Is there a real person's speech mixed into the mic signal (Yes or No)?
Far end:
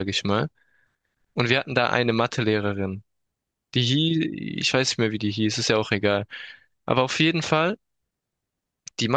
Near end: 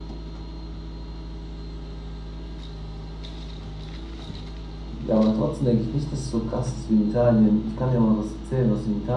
Yes